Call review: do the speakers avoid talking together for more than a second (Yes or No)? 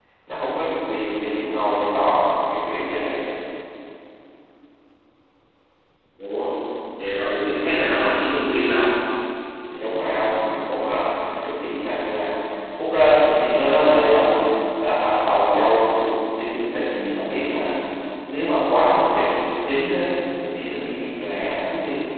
Yes